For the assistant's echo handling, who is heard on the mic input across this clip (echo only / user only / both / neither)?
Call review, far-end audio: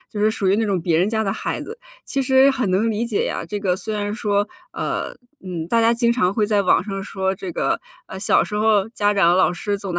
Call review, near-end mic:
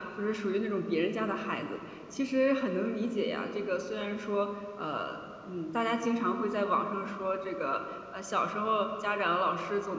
echo only